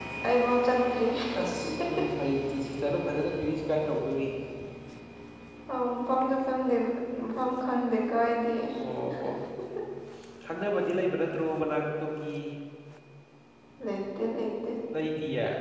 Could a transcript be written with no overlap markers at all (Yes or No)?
Yes